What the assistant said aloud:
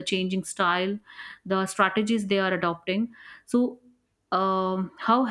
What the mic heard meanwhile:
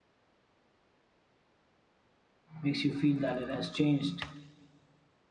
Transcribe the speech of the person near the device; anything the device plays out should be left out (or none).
makes you feel that it has changed?